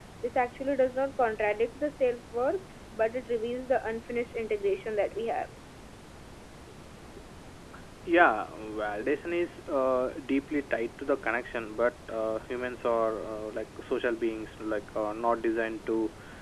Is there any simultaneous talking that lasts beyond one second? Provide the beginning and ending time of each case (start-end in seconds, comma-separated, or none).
none